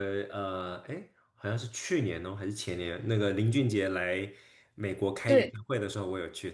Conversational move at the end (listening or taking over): listening